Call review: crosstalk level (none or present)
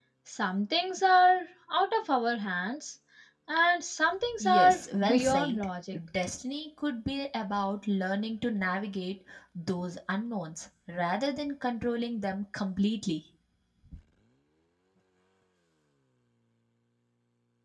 present